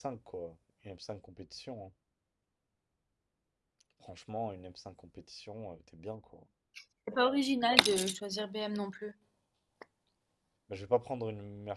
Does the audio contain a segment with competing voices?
No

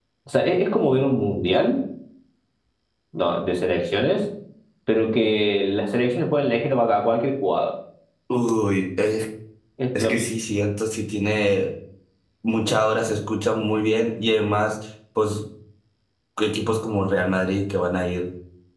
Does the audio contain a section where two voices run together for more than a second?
No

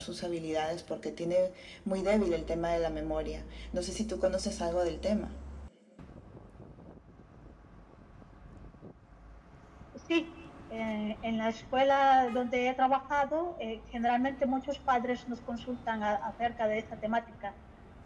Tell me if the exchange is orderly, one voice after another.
Yes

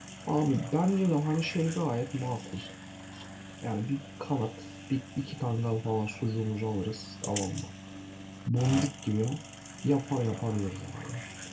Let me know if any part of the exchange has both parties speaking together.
No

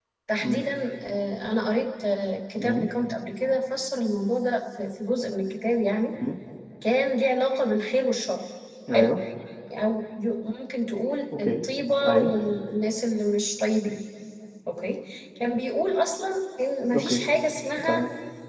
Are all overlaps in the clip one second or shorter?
Yes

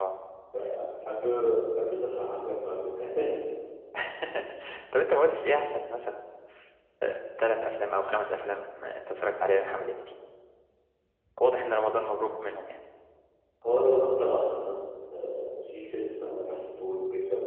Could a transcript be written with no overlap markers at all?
Yes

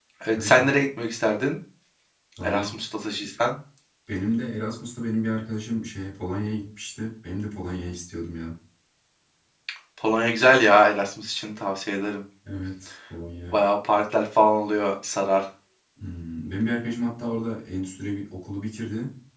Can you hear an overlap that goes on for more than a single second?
No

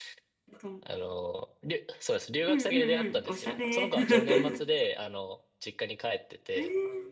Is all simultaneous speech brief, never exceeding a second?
No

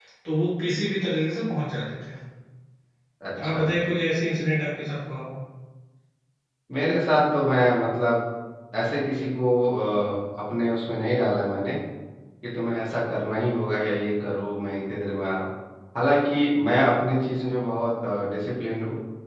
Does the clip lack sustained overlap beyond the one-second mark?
Yes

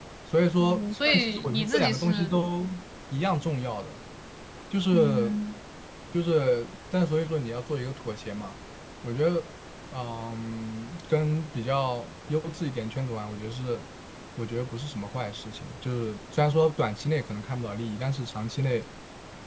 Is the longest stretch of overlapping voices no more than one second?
No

